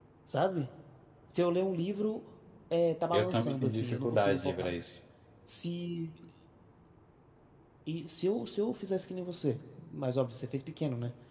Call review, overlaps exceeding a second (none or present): present